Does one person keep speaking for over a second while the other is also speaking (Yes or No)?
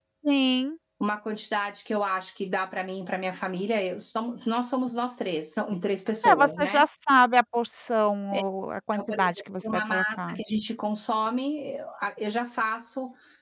Yes